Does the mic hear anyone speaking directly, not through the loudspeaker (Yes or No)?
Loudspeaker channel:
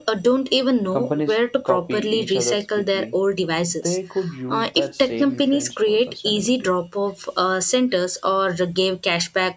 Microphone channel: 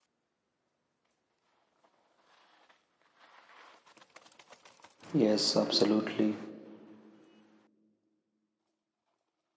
Yes